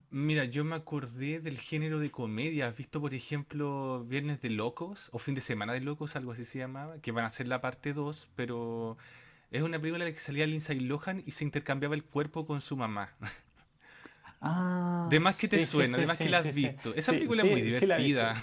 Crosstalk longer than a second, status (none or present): present